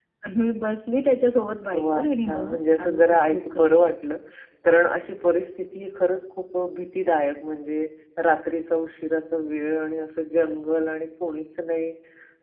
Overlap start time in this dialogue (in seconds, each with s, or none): 1.7 s